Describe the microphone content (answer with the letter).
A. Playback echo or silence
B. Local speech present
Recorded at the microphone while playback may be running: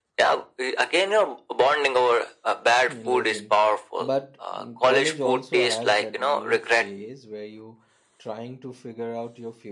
B